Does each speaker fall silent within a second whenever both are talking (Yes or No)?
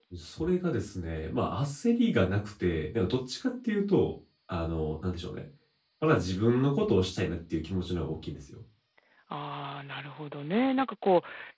Yes